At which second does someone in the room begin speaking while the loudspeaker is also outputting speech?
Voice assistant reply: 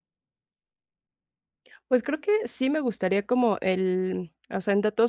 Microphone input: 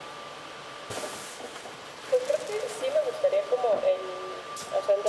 none

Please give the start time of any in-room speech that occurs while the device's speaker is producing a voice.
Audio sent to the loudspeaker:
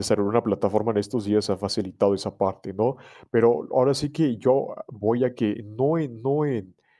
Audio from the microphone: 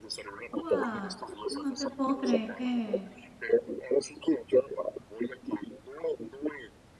0.5 s

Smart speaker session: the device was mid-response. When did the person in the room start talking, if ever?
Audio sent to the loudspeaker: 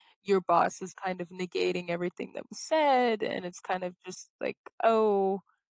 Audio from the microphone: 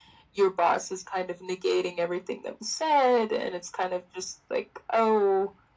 none

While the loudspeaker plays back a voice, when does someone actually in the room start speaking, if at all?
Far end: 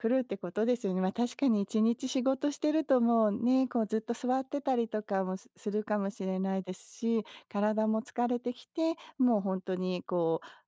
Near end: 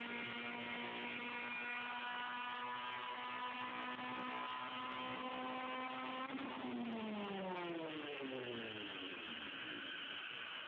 none

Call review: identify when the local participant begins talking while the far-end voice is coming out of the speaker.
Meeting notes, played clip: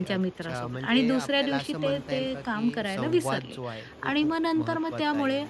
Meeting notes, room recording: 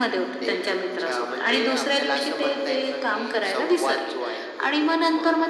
none

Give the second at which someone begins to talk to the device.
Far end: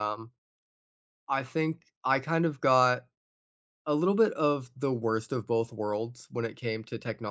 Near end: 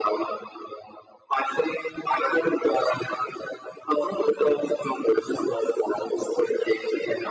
none

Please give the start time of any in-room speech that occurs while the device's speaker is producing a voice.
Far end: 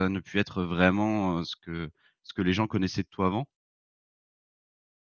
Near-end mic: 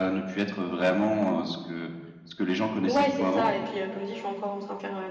2.9 s

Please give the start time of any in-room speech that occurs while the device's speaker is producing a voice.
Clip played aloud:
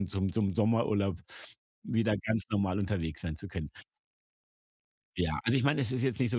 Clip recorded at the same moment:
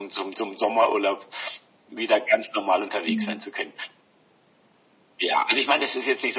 3.0 s

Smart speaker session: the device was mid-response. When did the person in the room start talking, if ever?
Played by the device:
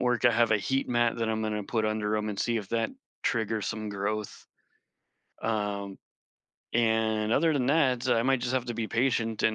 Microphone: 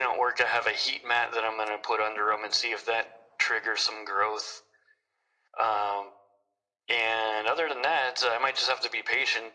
none

